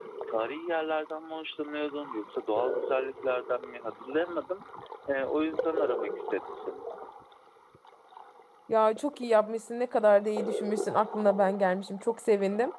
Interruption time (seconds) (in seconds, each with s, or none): none